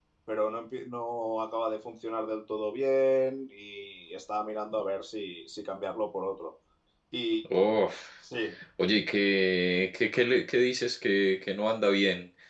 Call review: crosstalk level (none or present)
none